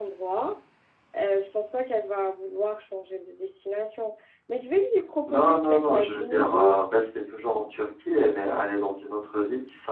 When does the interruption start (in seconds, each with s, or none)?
5.3 s